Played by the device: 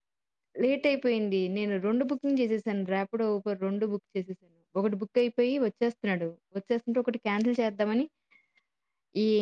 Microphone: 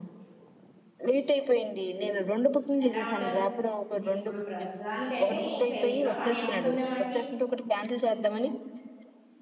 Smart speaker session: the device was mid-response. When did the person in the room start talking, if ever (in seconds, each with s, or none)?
2.9 s